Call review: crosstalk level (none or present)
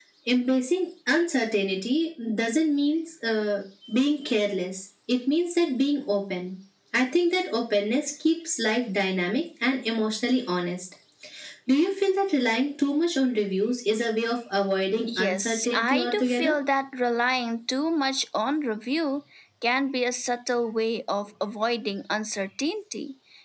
present